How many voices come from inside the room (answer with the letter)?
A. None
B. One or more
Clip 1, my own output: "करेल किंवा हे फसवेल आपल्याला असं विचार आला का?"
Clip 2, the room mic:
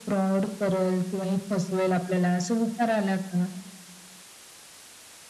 A